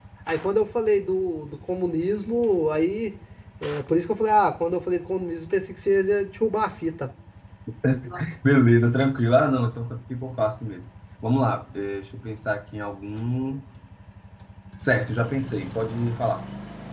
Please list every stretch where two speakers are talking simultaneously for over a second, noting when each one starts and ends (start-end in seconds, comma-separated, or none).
none